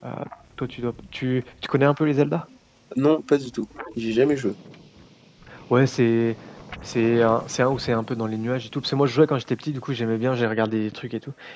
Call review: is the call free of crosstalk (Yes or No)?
Yes